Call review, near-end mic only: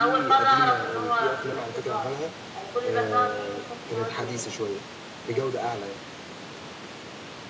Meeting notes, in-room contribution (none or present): present